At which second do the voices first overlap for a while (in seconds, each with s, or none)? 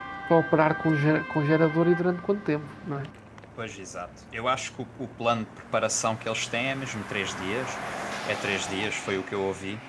none